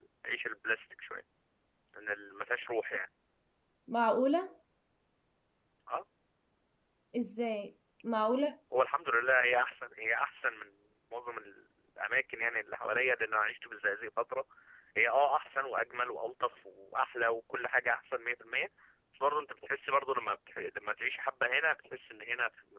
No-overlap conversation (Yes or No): Yes